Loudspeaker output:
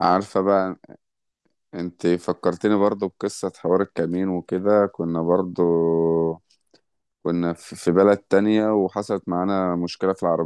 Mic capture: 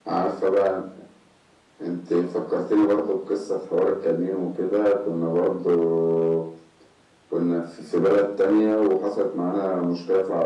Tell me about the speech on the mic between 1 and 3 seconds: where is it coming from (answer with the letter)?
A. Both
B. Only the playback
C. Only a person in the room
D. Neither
B